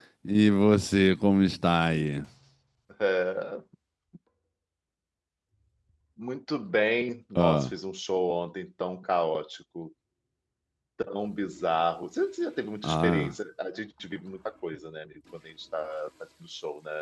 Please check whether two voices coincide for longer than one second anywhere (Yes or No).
No